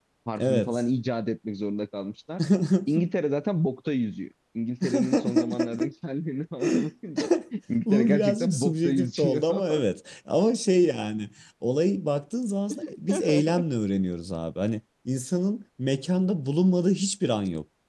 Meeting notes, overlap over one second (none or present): present